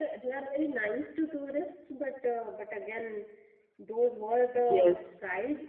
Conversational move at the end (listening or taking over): listening